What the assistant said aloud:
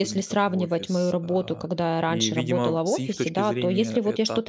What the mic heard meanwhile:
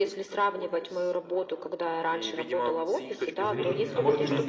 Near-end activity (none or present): present